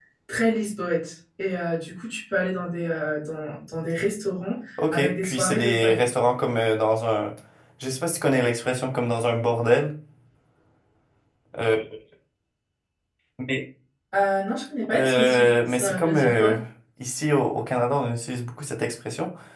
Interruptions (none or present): present